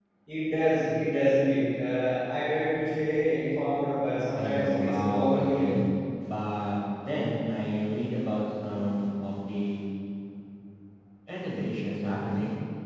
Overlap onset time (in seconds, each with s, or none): 4.4 s